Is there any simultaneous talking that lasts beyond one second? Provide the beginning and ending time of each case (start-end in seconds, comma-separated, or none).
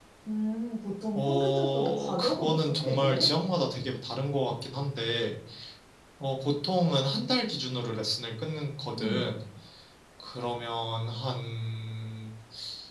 1.2-3.3